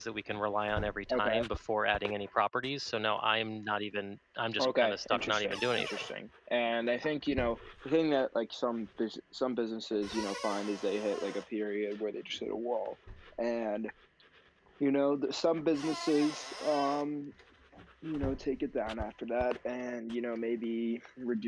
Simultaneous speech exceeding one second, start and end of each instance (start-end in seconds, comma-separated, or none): 4.6-6.0